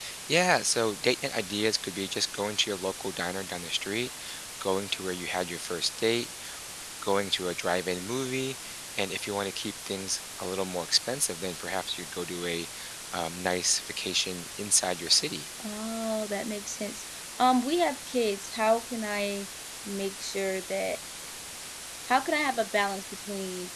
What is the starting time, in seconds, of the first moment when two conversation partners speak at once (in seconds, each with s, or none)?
none